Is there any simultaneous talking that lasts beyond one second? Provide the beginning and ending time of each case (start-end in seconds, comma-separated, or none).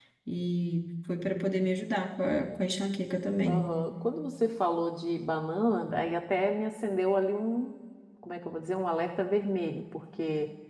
none